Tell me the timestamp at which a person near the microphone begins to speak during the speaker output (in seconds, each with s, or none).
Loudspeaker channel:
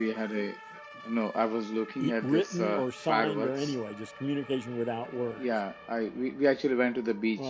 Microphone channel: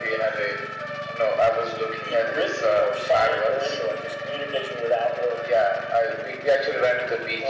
none